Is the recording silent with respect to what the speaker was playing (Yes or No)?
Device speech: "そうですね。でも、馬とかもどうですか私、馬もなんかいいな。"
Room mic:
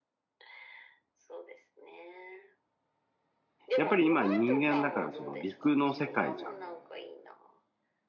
No